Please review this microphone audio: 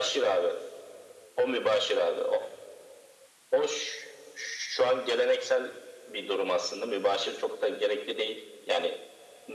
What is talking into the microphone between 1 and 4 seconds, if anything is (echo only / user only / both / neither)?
echo only